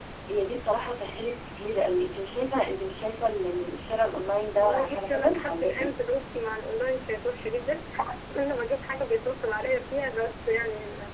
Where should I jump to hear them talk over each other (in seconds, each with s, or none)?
4.6 s